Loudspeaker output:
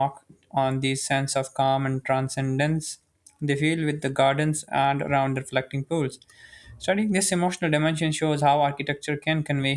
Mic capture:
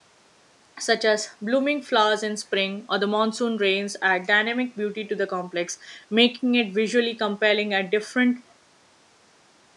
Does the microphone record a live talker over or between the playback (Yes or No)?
Yes